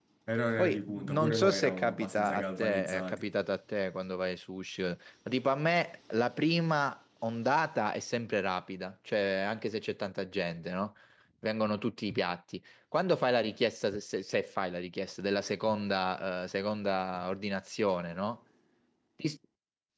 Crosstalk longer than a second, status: present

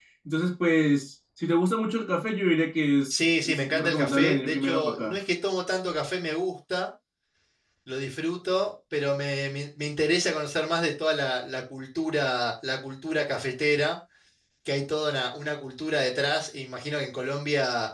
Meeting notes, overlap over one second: present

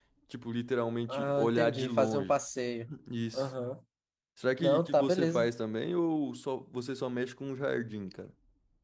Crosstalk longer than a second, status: present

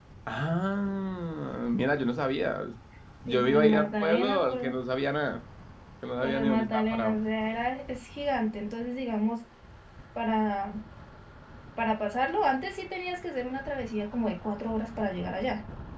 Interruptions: present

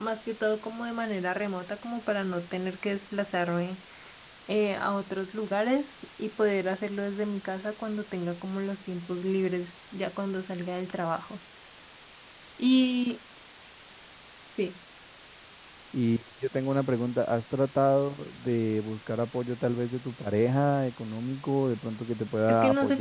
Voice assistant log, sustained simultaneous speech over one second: none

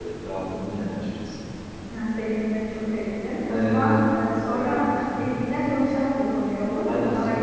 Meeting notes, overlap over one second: none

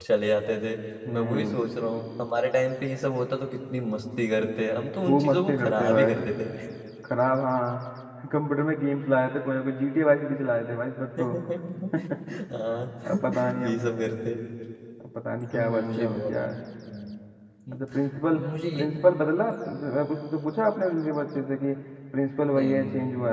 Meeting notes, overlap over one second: present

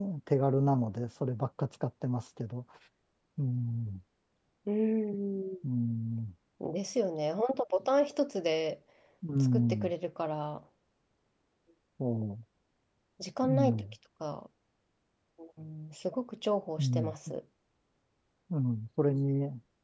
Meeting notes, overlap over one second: none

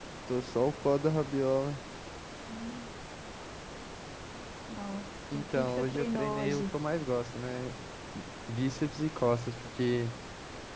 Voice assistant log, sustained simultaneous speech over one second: present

